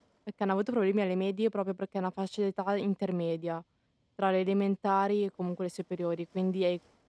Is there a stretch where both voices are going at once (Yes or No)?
No